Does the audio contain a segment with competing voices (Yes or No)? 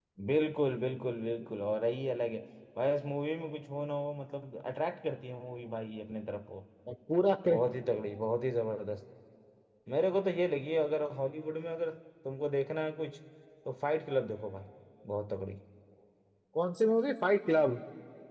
No